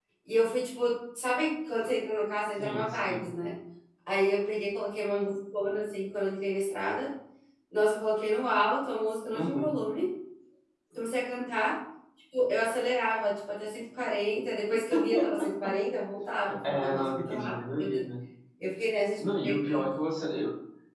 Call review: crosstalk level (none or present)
present